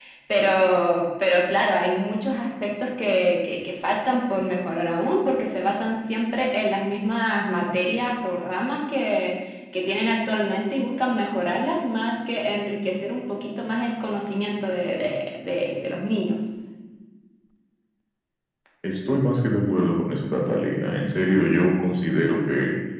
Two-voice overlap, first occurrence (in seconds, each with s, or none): none